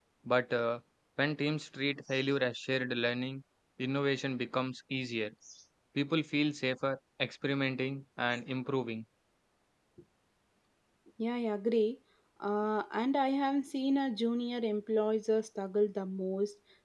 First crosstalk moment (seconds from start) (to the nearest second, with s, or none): none